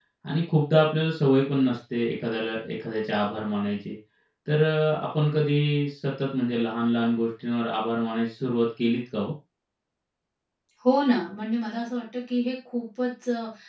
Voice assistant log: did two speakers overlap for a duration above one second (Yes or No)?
No